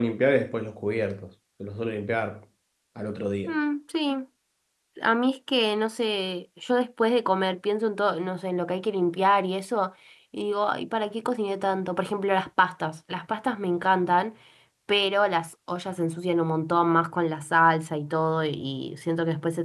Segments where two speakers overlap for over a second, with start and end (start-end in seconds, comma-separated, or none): none